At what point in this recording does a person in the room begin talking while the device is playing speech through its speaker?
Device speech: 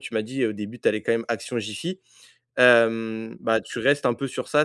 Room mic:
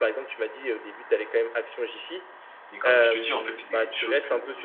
3 s

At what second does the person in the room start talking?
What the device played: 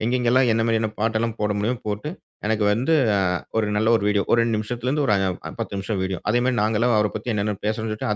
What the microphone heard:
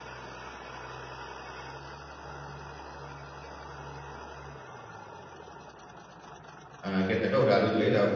7 s

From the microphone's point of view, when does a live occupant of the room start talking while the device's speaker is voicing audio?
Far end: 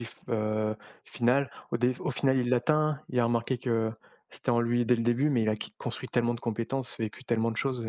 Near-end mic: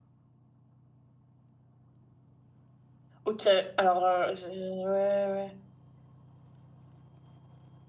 3 s

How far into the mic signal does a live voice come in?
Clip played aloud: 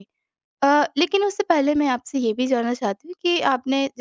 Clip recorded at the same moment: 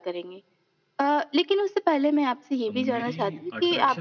3 s

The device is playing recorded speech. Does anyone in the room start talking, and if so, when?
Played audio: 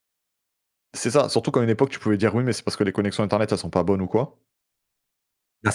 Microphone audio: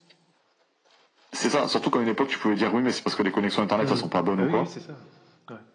4 s

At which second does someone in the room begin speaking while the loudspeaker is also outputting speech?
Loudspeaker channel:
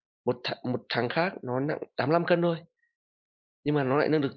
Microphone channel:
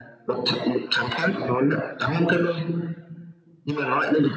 none

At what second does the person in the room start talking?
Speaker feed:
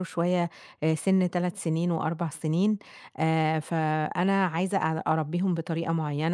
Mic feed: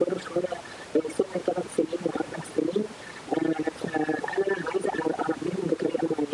none

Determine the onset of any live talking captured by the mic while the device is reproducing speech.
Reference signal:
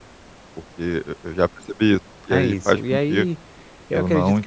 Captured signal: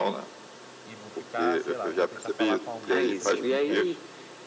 1 s

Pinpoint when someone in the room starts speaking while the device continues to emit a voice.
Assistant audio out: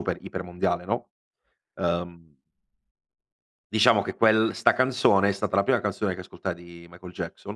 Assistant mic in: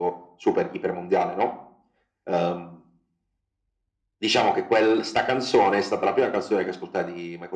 none

